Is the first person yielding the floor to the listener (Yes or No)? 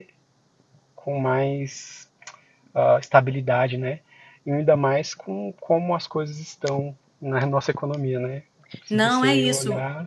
Yes